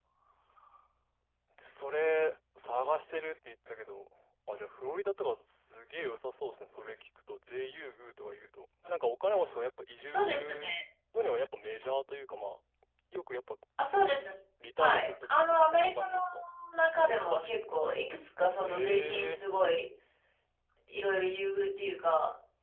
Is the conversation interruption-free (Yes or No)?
No